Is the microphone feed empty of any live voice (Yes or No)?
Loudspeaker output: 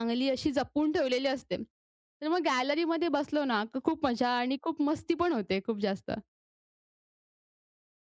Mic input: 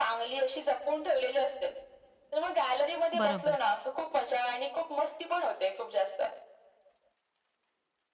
No